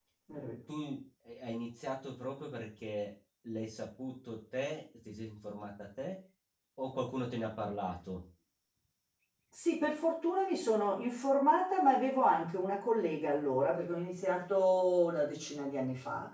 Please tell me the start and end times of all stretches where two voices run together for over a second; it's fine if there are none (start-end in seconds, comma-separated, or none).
none